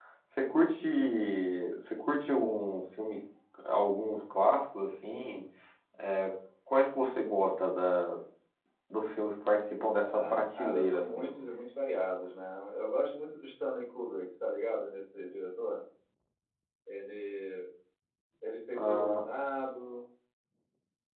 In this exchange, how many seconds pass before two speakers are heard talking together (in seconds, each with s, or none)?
10.1 s